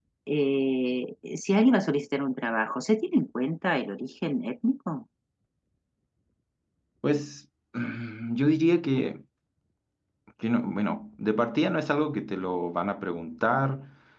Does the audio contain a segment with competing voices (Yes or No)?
No